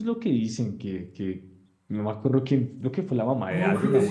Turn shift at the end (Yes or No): Yes